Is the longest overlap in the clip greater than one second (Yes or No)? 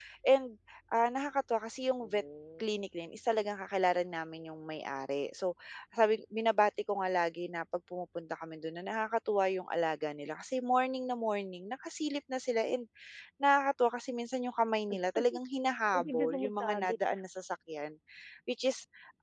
Yes